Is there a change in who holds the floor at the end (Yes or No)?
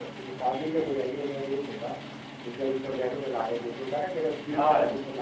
Yes